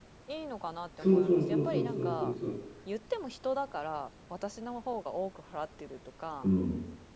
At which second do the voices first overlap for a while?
1.0 s

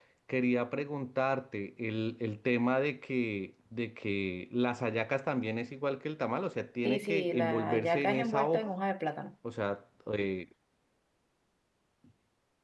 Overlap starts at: 6.8 s

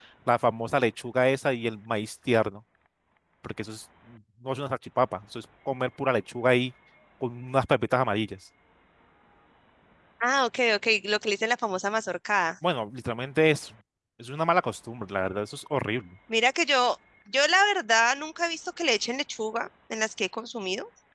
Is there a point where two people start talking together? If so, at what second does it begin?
none

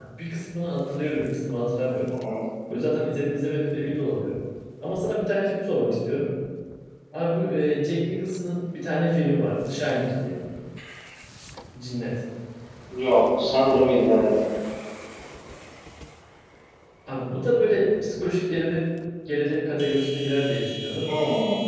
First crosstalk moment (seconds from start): none

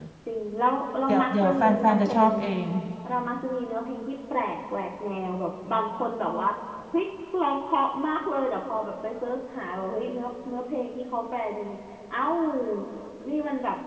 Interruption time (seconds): 1.1 s

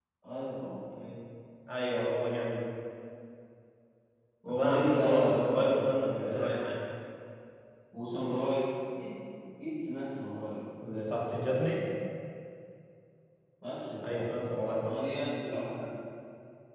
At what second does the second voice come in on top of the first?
4.5 s

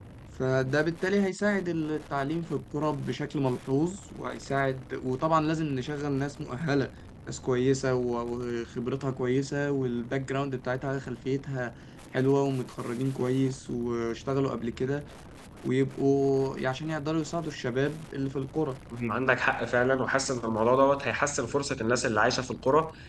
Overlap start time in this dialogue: none

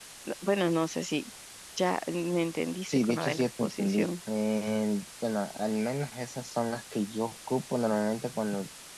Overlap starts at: 2.9 s

